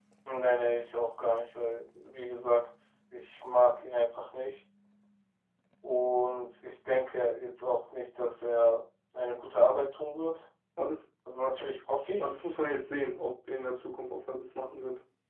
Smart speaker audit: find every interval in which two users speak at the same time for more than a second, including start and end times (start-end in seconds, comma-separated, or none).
none